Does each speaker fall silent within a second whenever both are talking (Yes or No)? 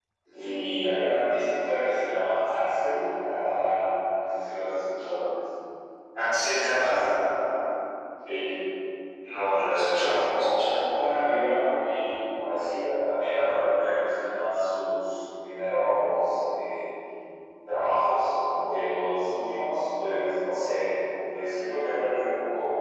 No